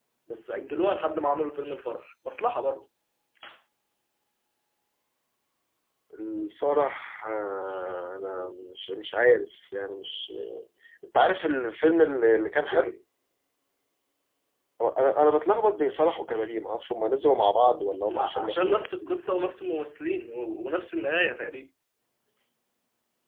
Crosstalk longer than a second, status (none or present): present